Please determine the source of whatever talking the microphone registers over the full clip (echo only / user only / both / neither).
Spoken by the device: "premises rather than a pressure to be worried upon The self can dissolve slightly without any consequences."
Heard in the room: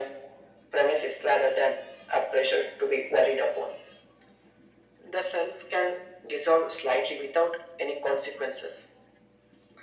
echo only